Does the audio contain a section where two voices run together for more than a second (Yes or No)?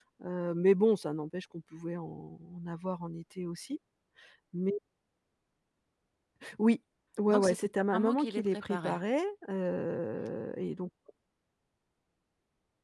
Yes